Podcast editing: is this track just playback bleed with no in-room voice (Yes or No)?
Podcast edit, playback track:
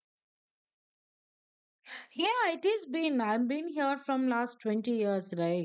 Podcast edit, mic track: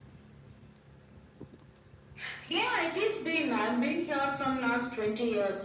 Yes